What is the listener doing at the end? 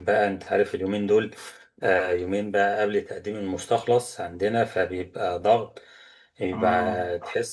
listening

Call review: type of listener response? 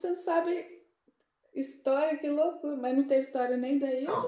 taking over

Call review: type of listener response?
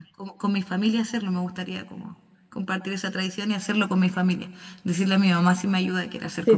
taking over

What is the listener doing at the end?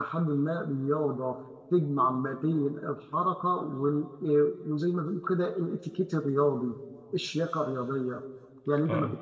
listening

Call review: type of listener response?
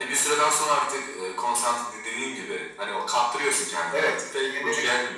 taking over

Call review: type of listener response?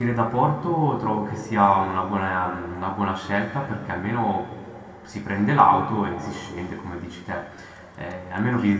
listening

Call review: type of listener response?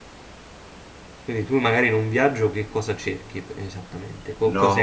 taking over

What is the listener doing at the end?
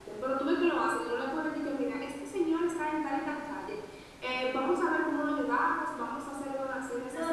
taking over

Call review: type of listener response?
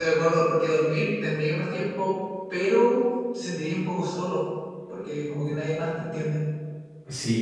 taking over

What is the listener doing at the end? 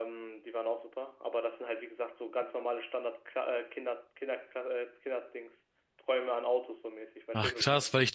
taking over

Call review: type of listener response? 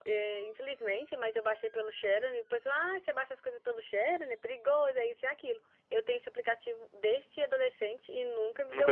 taking over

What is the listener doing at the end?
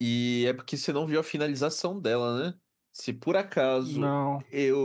listening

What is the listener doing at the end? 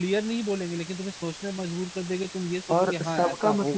taking over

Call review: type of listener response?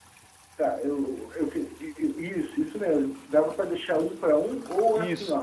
listening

